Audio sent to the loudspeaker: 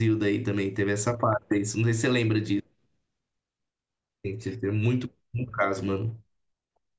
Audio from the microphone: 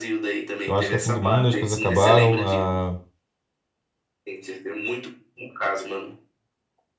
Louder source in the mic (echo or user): user